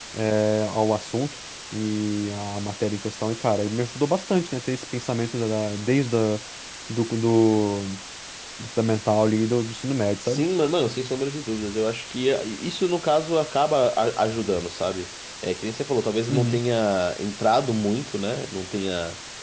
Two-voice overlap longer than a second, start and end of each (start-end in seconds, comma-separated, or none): none